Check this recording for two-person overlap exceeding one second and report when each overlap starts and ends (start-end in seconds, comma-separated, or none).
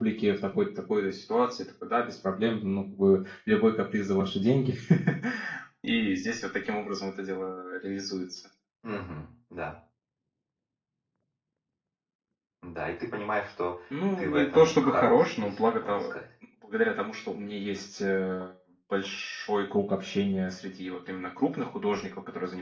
14.2-16.1